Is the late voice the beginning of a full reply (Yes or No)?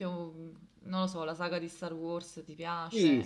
Yes